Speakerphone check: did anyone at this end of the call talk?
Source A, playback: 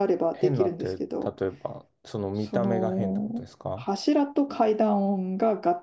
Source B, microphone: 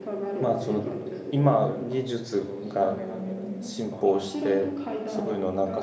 Yes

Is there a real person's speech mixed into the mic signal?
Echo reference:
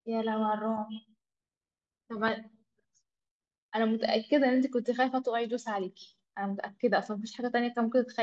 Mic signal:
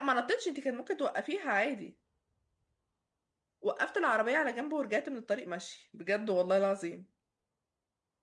Yes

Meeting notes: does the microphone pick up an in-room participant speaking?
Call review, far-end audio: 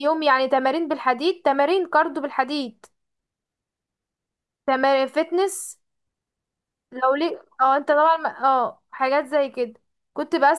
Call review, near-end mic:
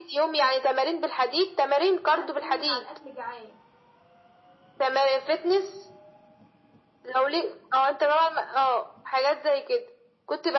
Yes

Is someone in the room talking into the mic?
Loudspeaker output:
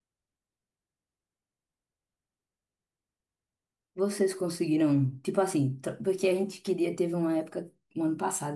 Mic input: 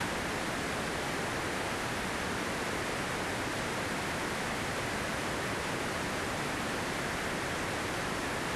No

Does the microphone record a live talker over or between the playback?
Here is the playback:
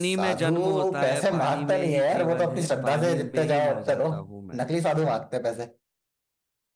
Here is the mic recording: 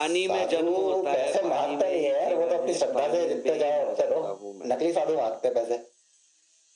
No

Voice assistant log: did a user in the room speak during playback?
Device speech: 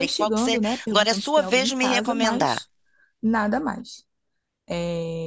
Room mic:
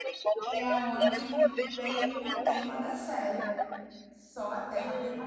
Yes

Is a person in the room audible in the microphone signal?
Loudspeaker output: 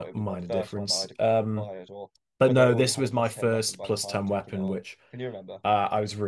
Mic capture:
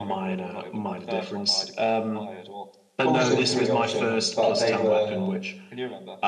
Yes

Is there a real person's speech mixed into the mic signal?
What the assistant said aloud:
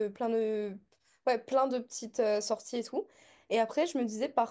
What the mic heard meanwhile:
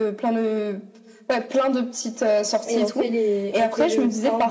Yes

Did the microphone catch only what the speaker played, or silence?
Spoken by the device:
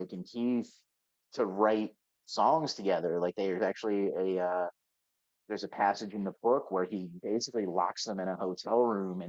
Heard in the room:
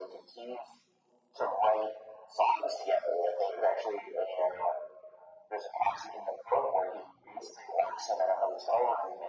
Yes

